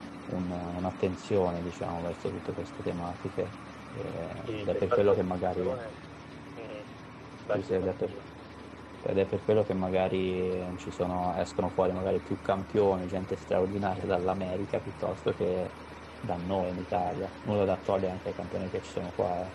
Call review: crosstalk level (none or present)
present